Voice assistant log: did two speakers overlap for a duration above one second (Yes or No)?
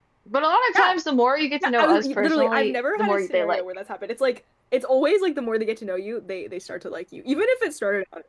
Yes